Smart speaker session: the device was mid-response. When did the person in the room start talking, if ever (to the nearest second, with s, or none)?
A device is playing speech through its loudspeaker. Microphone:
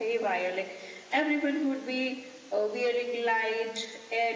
none